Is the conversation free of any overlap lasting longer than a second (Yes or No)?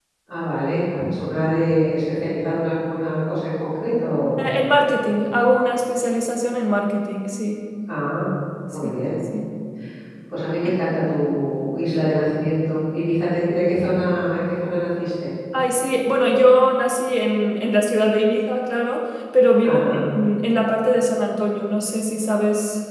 Yes